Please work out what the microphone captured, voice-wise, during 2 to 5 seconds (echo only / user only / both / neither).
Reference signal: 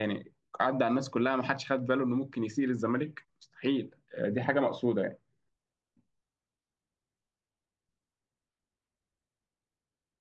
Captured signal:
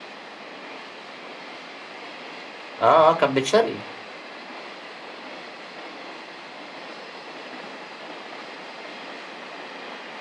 user only